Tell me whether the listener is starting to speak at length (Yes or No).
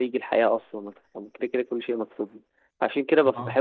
No